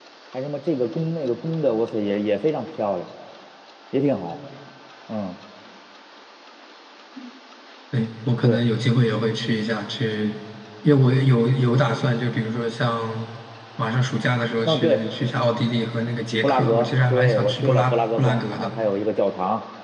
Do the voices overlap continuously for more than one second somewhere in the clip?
Yes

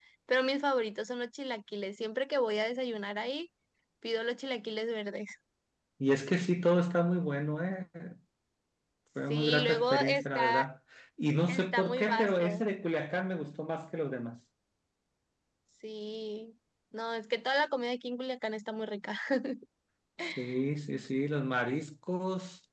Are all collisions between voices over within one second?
No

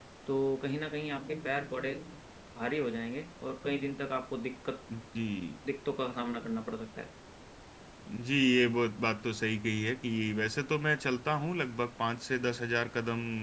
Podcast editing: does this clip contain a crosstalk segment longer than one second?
No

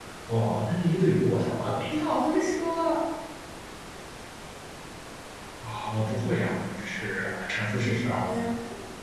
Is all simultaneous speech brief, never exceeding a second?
Yes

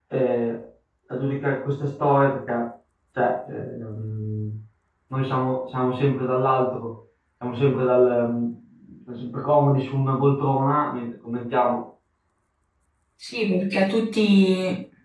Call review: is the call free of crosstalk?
Yes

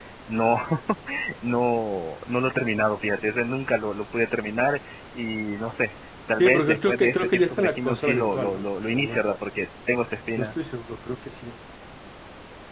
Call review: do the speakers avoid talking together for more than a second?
No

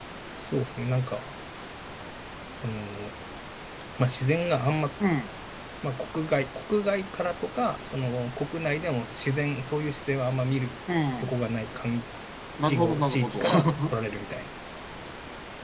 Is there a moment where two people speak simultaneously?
Yes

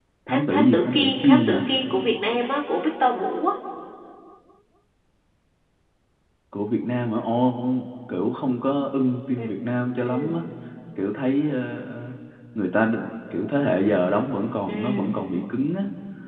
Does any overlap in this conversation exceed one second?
Yes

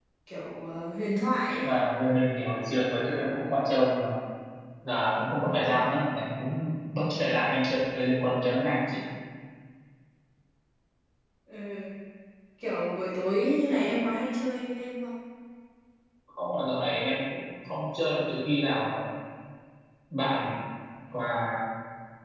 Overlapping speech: No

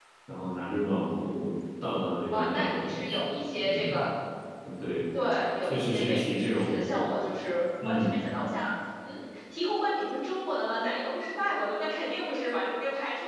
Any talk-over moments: Yes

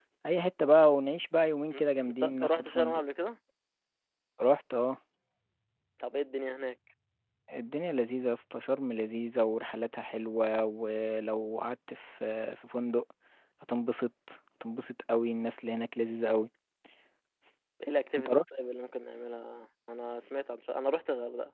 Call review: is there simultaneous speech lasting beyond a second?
Yes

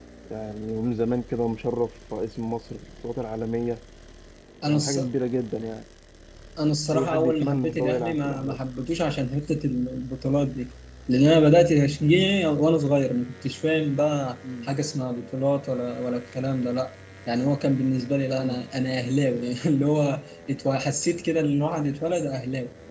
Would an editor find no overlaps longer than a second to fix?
No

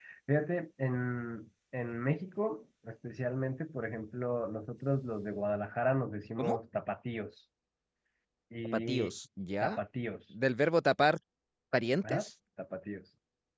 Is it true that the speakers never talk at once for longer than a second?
Yes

